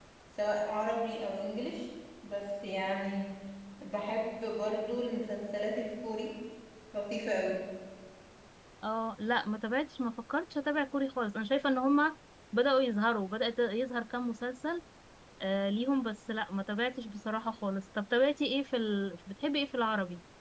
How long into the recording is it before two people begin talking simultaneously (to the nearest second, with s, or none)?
none